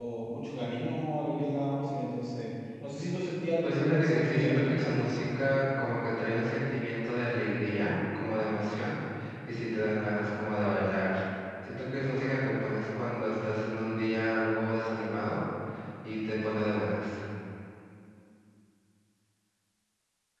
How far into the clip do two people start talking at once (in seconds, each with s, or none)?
3.6 s